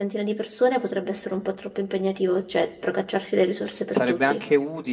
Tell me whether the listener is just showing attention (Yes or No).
No